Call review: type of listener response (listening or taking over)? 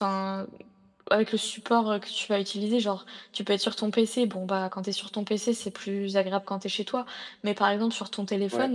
listening